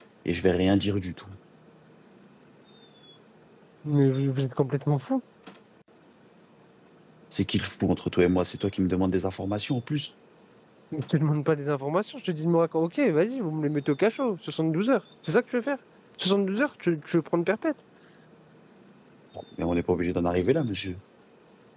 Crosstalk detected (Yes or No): No